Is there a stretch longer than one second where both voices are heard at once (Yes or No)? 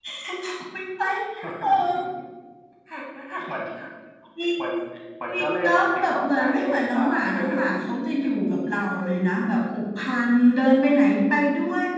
Yes